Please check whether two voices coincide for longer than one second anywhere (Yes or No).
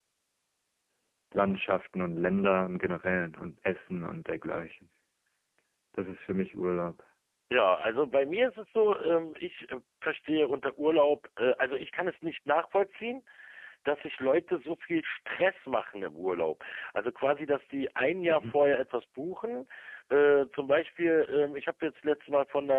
No